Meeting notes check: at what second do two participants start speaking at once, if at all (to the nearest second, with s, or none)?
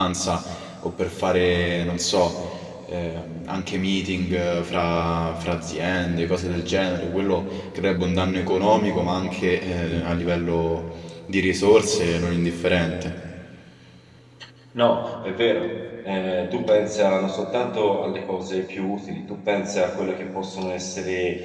none